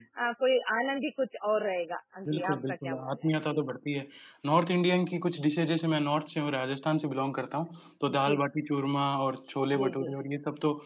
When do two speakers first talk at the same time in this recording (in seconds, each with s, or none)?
2.3 s